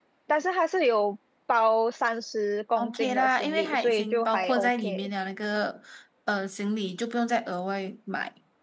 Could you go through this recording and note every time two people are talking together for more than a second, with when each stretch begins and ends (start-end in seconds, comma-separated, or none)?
2.8-5.1